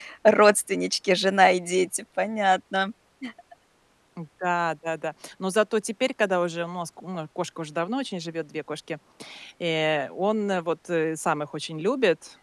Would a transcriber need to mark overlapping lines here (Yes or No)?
No